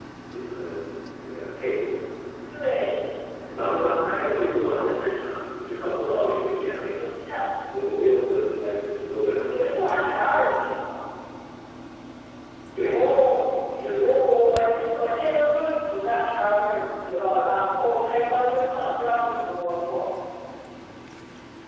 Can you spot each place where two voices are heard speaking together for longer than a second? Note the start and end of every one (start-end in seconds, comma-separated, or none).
none